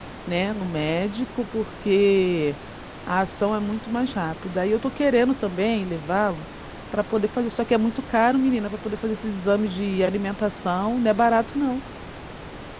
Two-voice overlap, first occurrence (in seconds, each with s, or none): none